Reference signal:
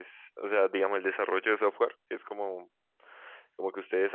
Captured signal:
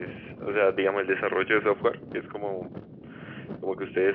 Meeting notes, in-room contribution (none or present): none